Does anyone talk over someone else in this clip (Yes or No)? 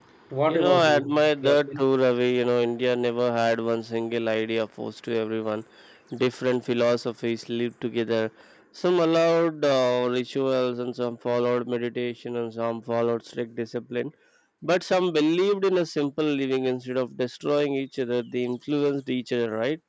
Yes